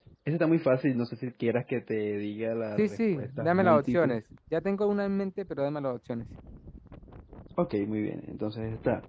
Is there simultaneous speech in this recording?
Yes, from 2.8 s

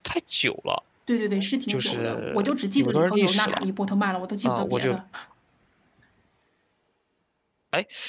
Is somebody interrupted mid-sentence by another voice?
Yes, from 1.7 s

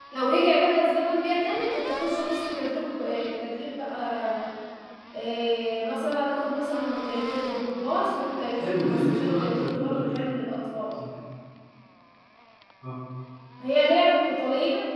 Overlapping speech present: Yes, from 8.5 s

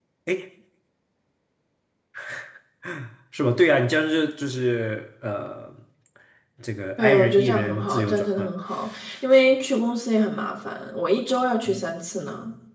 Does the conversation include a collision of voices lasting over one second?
Yes, from 7.0 s

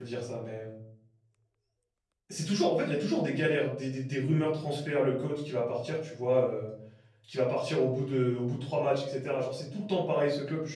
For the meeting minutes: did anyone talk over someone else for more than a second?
No

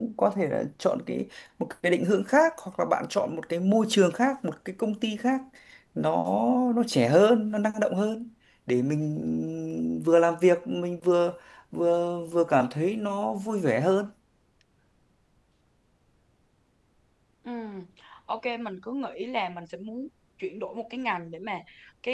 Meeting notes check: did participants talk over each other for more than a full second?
No

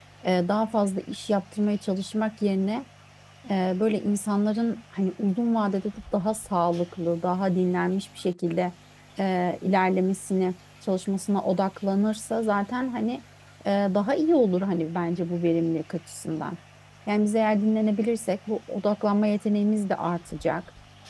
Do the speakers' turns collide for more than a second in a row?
No

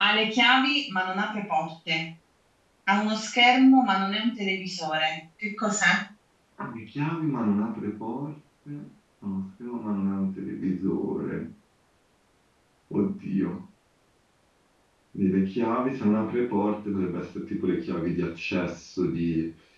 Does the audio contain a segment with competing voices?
No

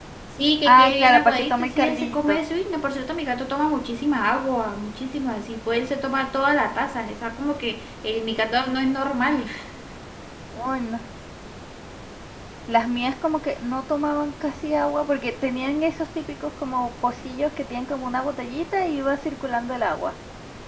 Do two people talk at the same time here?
Yes, from 0.7 s

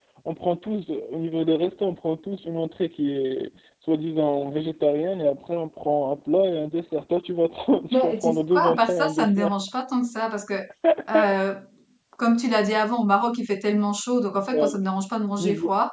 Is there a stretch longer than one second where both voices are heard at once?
Yes, from 7.9 s

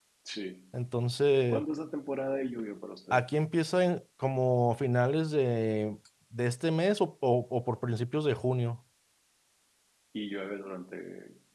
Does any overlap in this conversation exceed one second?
No

